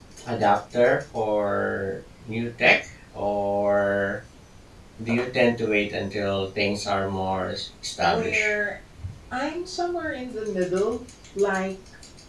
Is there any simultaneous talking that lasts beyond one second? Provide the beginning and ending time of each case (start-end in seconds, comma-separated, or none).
none